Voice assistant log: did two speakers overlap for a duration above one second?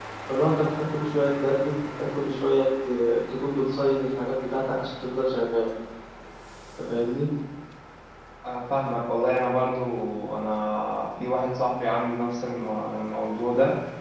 No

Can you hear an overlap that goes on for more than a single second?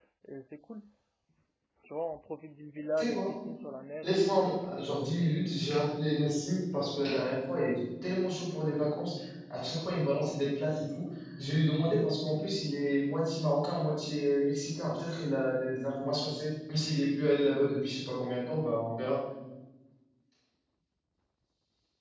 Yes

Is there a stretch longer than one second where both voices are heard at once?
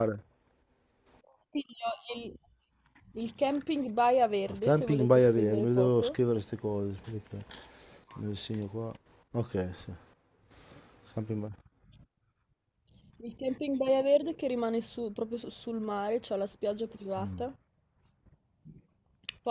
Yes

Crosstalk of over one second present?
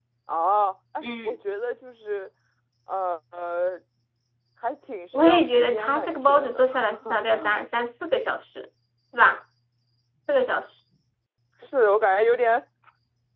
Yes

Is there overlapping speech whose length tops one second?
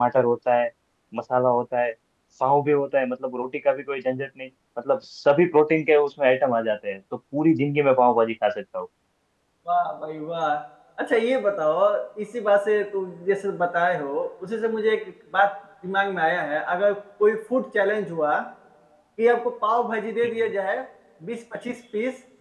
No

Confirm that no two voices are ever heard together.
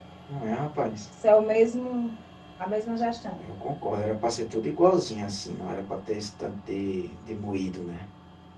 Yes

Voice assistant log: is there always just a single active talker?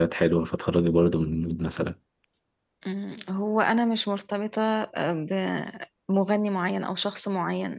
Yes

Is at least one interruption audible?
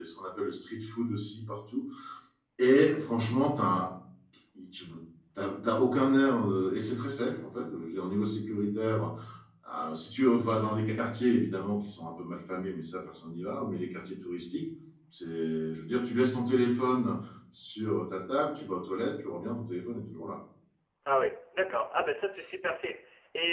No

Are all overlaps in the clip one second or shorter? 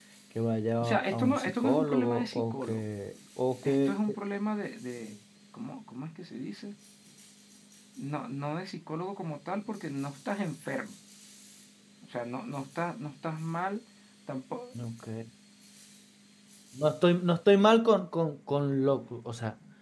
No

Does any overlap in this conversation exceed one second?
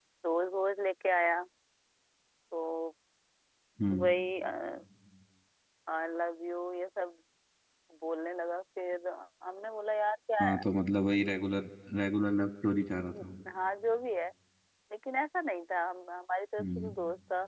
No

